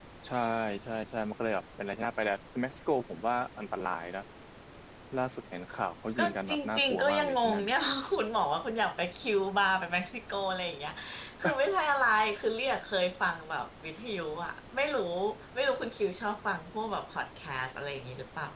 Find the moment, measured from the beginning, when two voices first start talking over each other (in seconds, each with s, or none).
6.2 s